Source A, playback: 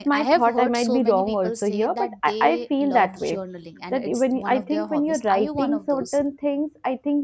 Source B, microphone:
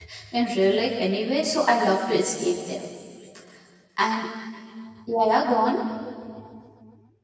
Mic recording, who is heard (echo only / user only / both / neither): user only